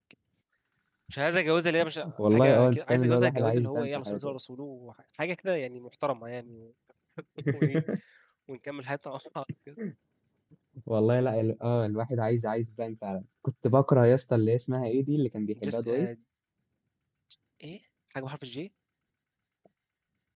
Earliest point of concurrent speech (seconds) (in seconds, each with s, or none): 2.3 s